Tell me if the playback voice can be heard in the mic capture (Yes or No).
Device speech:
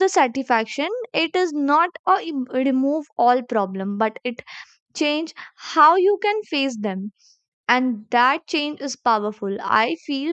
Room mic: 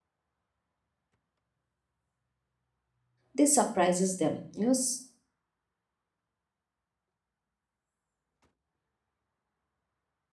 No